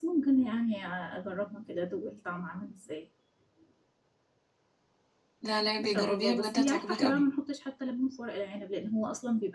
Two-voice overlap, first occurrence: 6 s

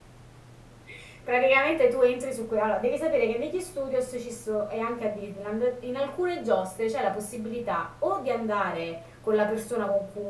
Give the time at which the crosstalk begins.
none

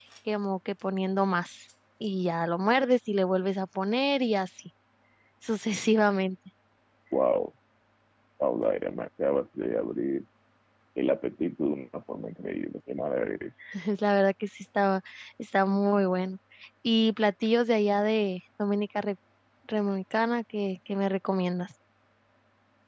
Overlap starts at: none

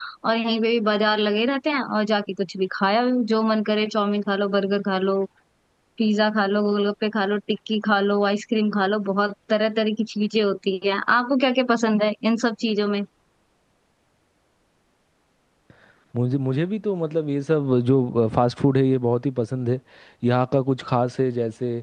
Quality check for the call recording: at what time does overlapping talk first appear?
none

